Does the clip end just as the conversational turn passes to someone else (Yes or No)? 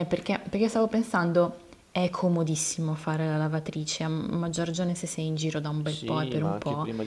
Yes